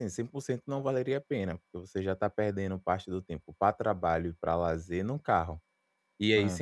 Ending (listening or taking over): listening